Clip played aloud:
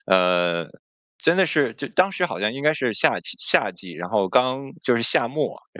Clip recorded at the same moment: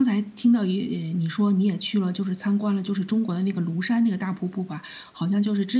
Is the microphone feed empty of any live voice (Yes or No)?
No